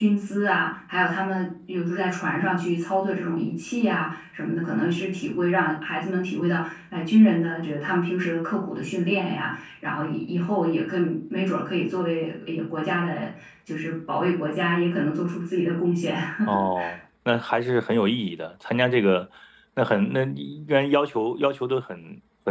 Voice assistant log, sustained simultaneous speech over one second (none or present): none